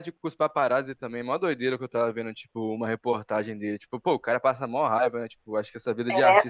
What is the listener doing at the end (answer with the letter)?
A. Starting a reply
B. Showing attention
B